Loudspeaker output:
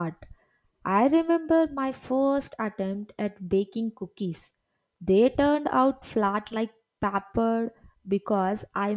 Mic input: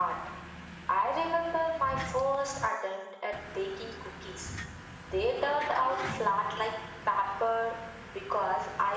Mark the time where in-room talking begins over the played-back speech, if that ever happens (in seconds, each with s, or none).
none